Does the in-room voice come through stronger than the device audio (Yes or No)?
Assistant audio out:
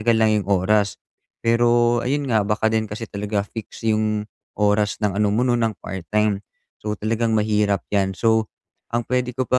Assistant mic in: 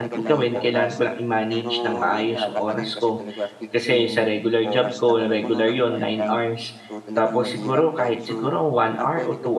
Yes